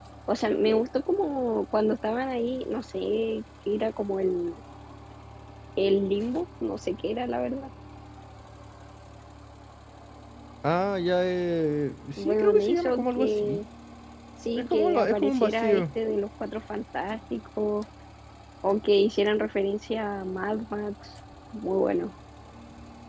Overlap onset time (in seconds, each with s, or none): 12.2 s